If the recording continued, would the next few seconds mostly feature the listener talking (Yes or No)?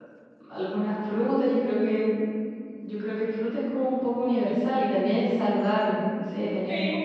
No